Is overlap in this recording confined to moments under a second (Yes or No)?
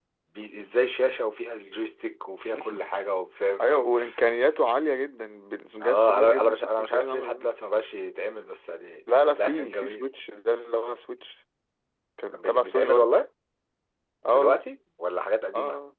No